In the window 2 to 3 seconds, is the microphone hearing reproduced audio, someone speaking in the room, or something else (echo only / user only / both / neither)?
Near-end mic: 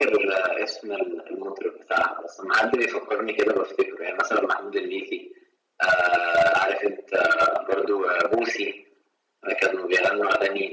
echo only